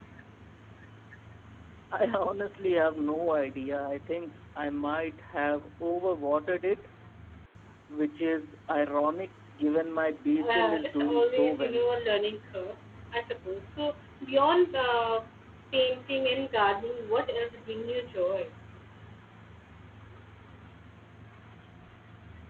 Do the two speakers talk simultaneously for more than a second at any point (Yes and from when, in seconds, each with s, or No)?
Yes, from 10.4 s